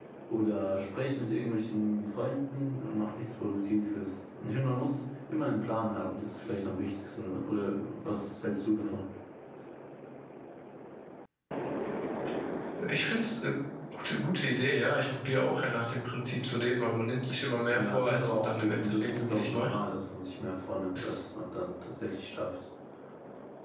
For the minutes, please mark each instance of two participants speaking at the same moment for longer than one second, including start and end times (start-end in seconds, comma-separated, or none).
17.7-19.8